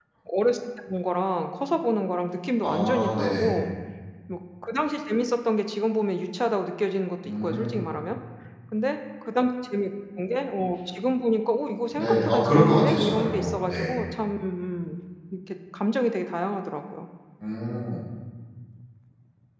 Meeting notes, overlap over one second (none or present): present